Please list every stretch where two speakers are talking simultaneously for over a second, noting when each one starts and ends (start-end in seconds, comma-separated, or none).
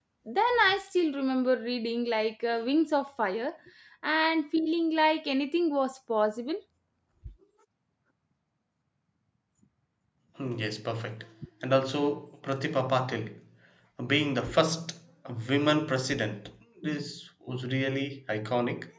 none